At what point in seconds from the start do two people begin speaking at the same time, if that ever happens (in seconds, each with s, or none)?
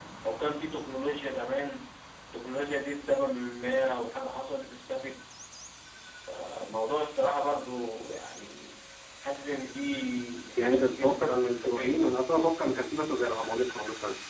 10.6 s